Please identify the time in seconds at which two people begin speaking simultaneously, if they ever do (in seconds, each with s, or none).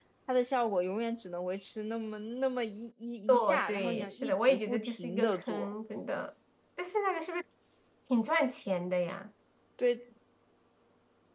3.3 s